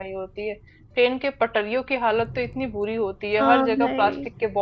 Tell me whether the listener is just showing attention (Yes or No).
Yes